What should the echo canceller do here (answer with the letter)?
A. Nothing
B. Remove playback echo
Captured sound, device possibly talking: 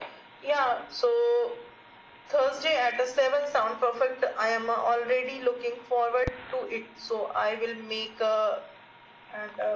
B